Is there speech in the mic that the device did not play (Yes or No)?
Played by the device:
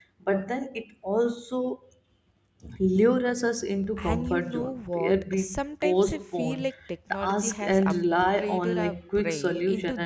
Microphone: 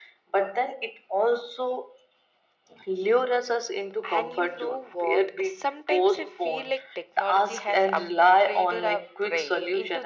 No